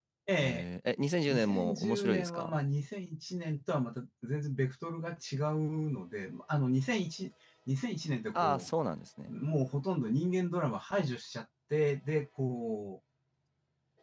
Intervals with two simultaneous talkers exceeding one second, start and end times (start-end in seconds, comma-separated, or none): 1.3-2.6